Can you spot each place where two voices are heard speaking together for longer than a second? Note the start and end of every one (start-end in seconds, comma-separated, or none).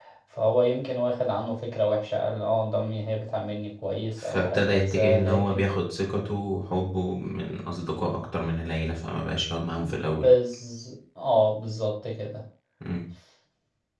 4.2-5.6